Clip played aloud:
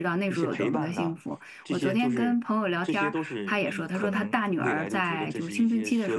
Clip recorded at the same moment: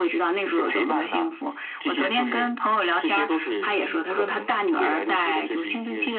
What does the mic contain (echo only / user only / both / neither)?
echo only